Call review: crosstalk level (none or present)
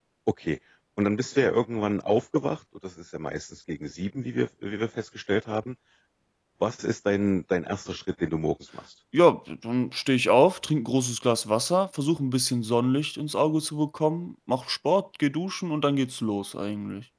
none